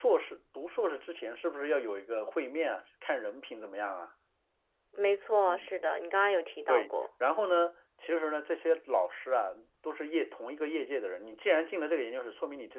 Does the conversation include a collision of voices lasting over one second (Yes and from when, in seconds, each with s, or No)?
No